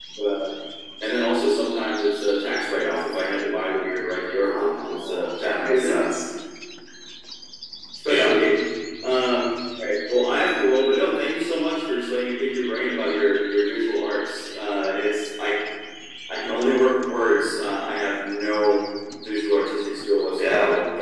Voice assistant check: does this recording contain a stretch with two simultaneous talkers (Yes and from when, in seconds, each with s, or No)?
Yes, from 4.4 s